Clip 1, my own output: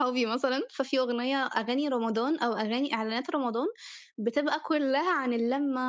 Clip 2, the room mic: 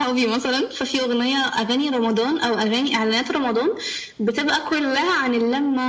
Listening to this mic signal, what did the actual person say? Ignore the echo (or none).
none